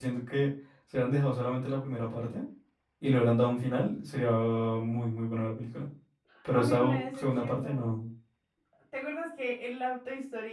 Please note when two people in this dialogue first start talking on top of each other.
6.5 s

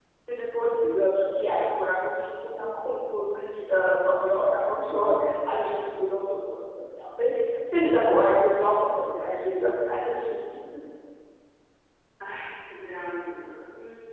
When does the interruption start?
none

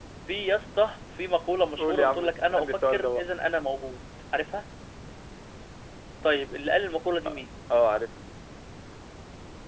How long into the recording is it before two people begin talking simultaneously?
1.8 s

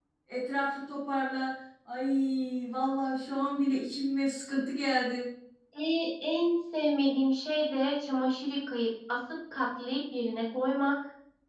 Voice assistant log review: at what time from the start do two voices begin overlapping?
none

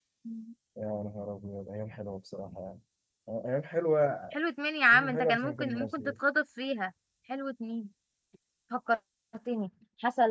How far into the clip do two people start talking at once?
4.9 s

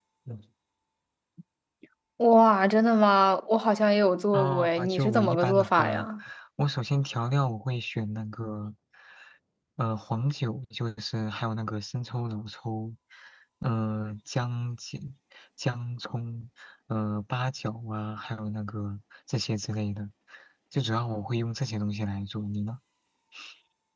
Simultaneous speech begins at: 4.3 s

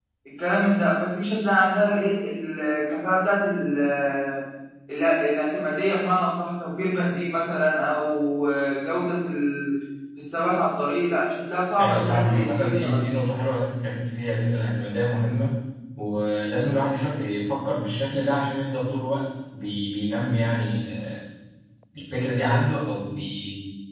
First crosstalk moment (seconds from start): 11.8 s

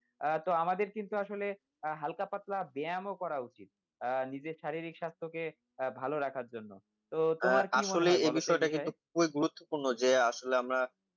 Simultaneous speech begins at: 7.4 s

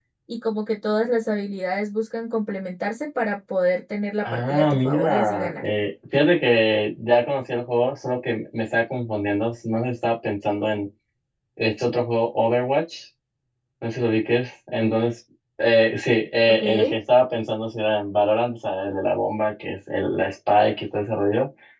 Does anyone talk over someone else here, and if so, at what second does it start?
4.3 s

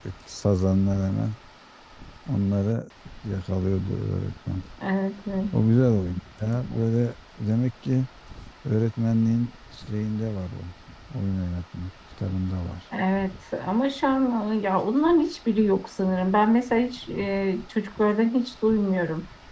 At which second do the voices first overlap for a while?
none

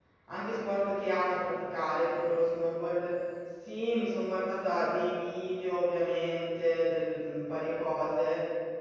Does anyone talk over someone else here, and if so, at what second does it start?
none

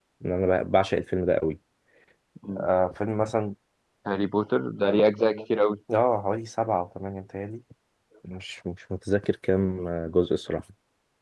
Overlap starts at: none

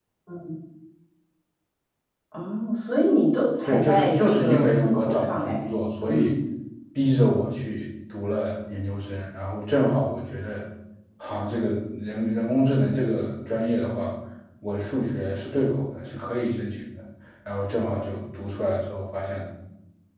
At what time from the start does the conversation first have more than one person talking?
3.7 s

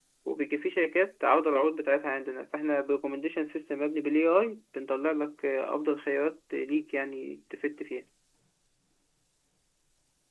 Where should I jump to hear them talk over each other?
none

